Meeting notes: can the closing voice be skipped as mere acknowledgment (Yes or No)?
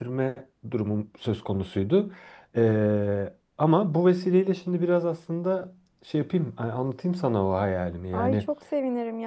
No